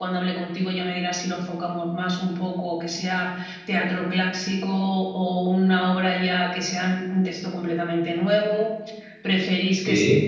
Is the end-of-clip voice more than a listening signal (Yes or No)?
No